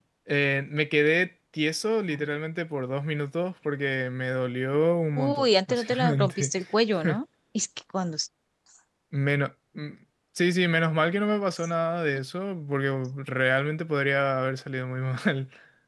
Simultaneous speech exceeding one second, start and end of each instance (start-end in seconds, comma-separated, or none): 5.2-6.5